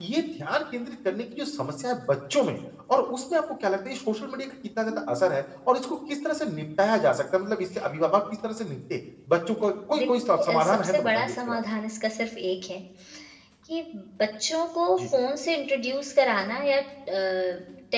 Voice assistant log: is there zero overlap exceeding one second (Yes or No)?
No